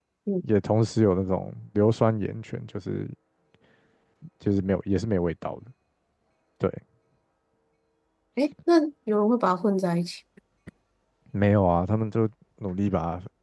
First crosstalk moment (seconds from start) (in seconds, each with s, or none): none